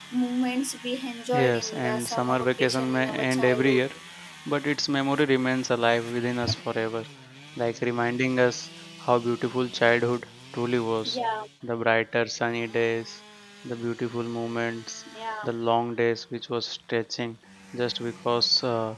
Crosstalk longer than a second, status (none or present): present